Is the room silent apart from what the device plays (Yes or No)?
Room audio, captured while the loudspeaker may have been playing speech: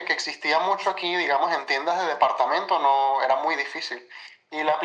Yes